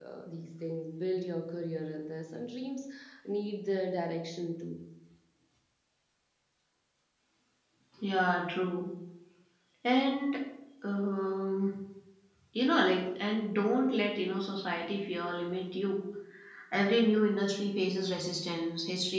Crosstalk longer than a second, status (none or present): none